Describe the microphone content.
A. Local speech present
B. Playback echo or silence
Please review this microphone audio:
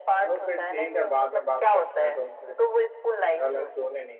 A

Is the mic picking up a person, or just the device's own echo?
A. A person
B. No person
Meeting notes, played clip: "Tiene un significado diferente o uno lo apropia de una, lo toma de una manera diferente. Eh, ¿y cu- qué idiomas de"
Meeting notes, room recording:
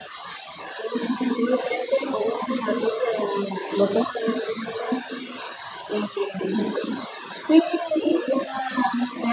B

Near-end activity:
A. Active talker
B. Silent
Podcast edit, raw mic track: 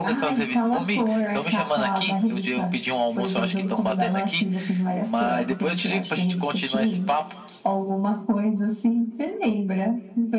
B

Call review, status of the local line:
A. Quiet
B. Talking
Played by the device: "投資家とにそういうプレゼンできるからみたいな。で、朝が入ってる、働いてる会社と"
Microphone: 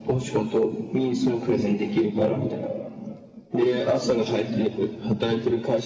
A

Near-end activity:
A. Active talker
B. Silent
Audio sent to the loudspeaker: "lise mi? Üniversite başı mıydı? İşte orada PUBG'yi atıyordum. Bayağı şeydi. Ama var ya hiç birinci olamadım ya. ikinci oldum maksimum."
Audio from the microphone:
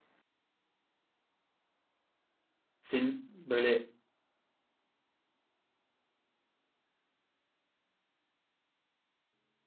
A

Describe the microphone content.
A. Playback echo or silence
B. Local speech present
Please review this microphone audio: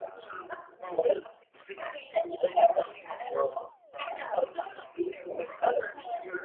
A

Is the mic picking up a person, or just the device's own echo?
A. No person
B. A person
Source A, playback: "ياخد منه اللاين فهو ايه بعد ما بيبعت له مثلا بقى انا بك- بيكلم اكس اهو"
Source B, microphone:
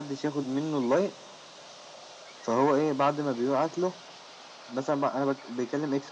A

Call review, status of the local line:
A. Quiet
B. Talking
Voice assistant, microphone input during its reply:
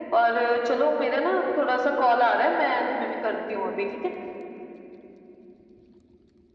A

